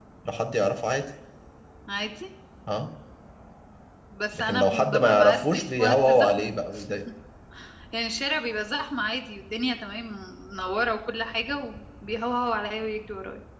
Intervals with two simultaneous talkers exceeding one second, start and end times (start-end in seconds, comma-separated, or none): 4.3-6.3